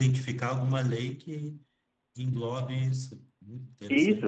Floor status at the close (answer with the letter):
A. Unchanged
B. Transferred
B